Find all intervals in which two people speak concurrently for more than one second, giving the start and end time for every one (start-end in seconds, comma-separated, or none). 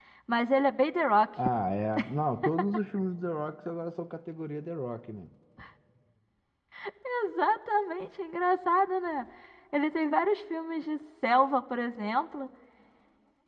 none